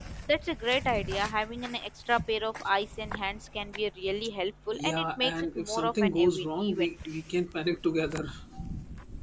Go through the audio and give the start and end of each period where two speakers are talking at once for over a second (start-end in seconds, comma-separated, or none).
4.7-6.9